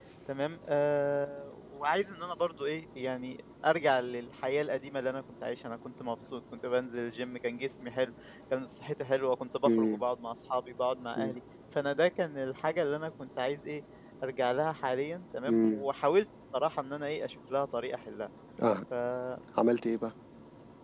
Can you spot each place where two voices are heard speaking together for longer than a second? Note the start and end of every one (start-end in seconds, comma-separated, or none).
none